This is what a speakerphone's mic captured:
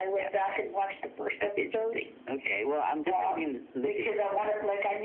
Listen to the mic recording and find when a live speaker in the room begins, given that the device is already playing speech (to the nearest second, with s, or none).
none